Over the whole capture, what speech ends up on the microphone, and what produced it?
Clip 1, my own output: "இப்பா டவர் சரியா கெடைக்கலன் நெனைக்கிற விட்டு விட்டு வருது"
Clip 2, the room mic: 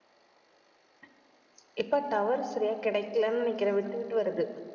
echo only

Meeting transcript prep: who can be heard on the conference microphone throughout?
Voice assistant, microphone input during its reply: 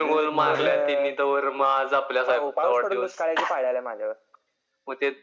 both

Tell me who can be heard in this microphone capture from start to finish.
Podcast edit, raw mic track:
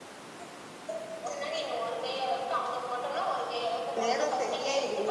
both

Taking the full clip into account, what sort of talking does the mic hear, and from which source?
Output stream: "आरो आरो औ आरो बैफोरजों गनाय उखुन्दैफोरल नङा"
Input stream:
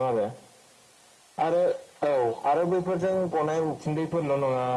echo only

